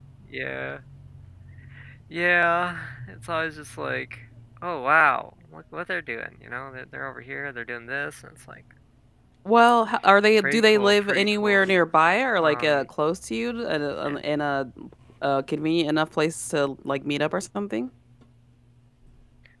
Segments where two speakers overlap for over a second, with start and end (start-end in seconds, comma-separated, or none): 10.4-11.6